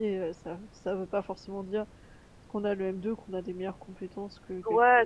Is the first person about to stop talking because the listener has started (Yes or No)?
Yes